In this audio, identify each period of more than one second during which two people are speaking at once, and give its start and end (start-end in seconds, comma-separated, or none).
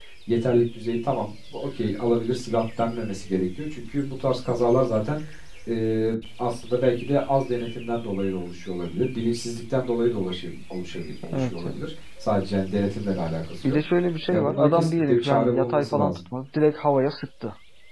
14.3-16.2